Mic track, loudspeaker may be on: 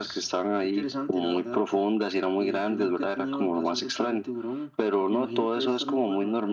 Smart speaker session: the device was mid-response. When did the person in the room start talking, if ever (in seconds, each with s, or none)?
none